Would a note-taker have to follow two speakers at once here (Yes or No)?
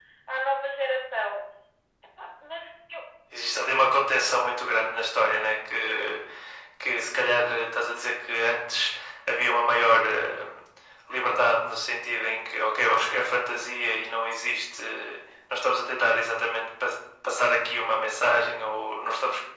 No